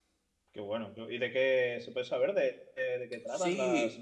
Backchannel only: No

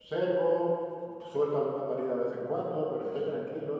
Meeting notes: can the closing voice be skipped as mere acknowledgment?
Yes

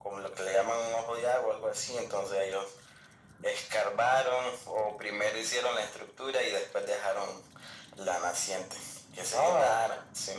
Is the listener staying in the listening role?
No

